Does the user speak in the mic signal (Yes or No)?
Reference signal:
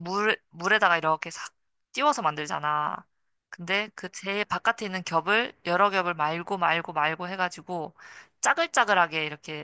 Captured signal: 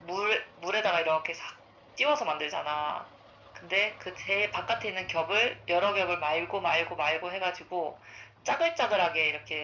No